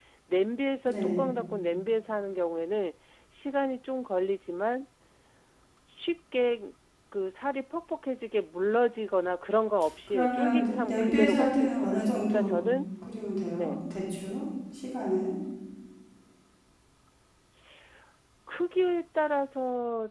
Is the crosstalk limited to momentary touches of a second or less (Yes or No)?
No